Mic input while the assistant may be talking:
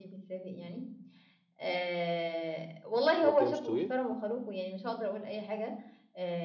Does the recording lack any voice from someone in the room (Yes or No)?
No